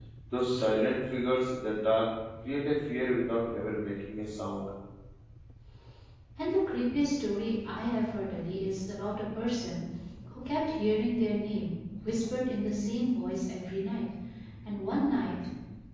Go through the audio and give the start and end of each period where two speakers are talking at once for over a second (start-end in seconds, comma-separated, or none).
none